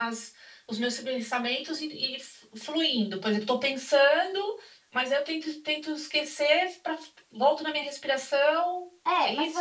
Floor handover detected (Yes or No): Yes